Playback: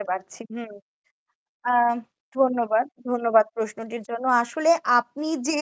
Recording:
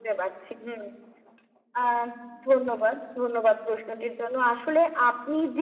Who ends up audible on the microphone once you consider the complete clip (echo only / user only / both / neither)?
echo only